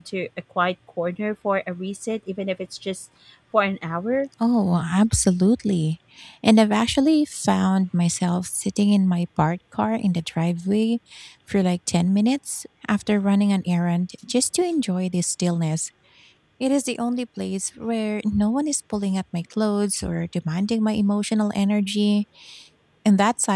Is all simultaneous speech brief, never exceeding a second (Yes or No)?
Yes